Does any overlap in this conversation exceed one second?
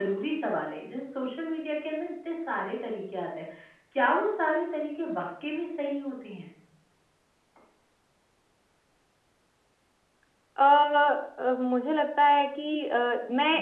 No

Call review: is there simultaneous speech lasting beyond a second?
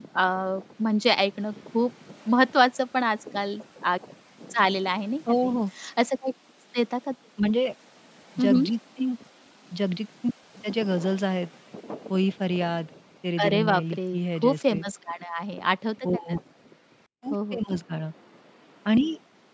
Yes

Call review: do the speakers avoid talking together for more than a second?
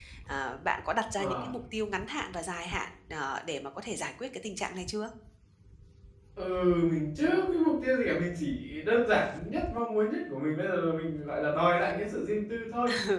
Yes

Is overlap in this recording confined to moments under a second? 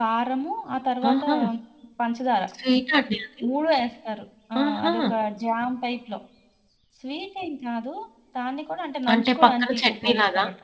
No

